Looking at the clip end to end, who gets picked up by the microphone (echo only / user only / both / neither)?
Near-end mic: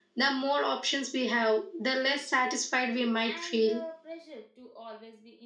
both